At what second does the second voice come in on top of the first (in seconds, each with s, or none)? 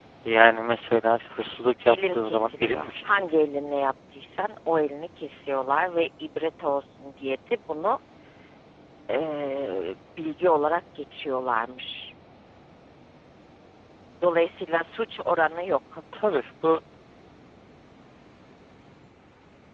1.9 s